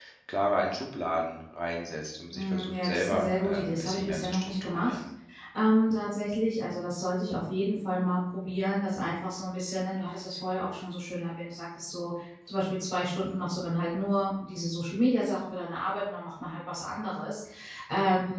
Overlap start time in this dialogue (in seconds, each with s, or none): 2.3 s